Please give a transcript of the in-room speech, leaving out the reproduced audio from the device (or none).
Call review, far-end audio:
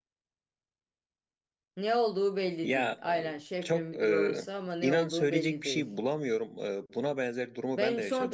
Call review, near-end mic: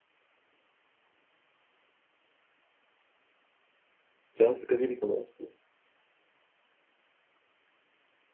Can sıkıcı bir konu açıkçası.